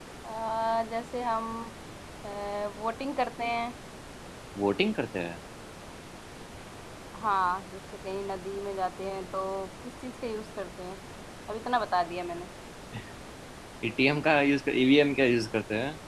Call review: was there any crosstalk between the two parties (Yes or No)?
No